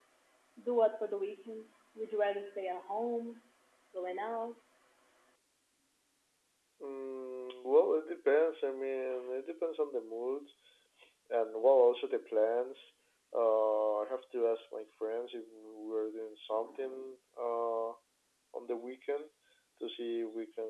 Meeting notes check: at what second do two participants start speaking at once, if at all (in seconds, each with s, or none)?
none